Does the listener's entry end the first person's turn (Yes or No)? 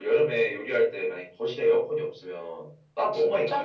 Yes